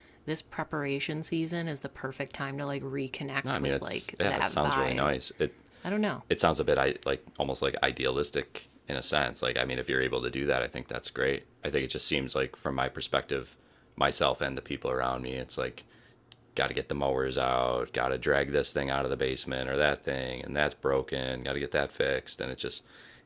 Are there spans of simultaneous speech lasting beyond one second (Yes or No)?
Yes